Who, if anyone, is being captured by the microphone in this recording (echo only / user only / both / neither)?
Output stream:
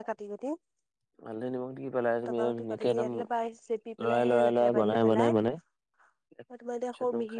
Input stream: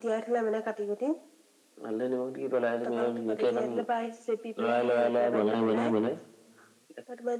echo only